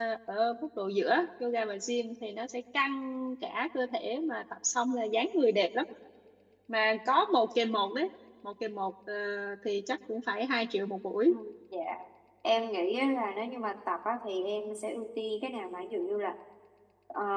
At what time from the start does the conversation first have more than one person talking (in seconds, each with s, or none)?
none